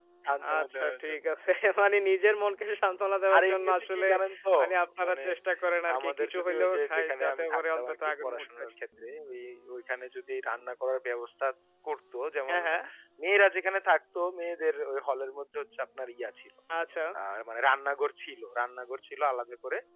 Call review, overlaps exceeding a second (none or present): present